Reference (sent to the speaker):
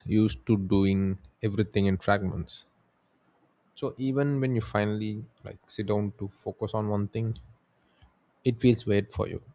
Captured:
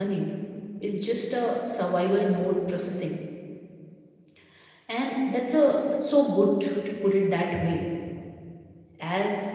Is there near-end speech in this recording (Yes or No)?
Yes